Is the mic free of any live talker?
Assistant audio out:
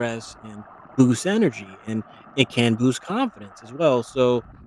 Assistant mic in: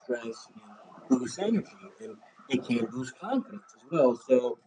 Yes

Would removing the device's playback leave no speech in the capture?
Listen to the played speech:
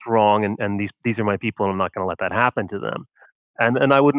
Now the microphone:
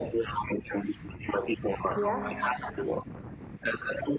No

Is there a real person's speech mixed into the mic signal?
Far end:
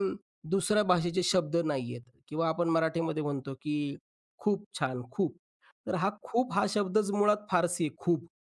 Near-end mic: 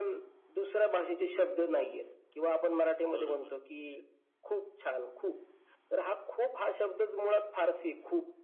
Yes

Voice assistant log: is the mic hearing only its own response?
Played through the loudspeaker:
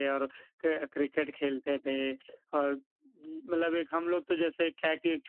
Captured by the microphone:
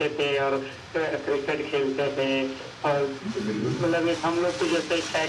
No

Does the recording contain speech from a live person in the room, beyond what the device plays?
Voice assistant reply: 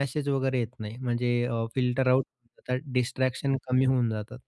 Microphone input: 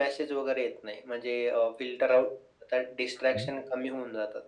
Yes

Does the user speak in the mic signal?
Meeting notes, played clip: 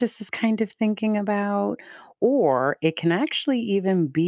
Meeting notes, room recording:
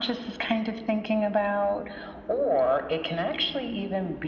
No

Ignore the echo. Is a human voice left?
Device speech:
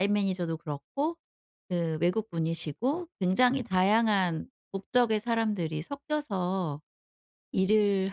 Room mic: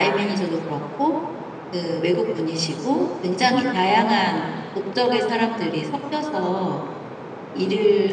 No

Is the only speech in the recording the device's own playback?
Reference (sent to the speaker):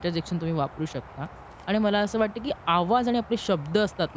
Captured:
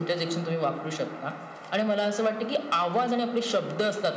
Yes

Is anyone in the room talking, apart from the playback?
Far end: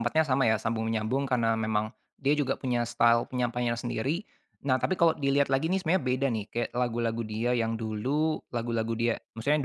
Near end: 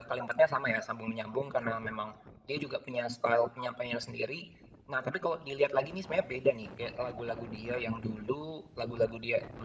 No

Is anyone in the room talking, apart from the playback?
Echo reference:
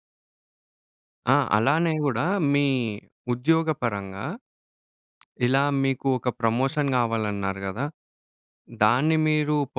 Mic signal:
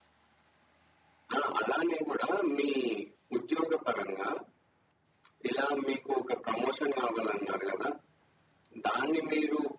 No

